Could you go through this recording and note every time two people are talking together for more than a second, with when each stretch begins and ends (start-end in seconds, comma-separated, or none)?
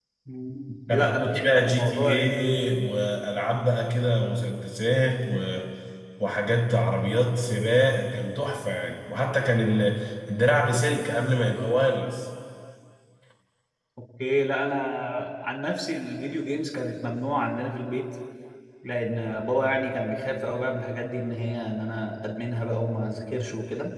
0.9-2.3